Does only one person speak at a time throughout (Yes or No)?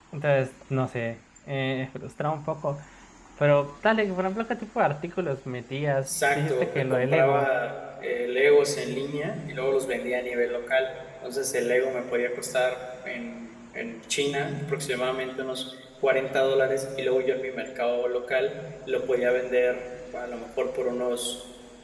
No